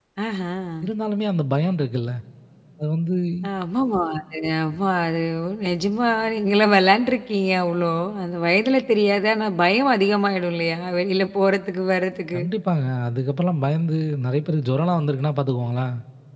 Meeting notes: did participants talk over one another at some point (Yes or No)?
No